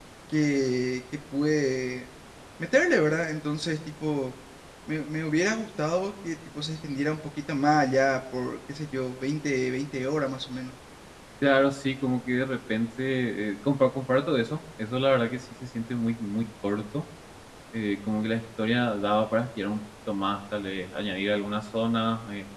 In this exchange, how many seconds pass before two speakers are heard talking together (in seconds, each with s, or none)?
none